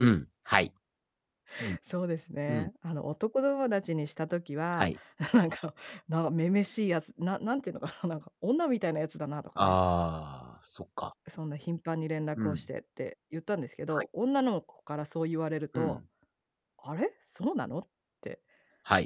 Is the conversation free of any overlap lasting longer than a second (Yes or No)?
Yes